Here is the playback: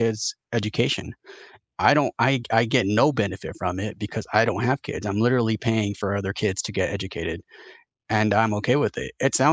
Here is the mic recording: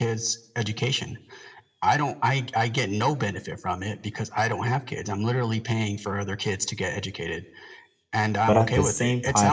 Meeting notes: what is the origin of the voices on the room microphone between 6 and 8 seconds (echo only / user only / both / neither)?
echo only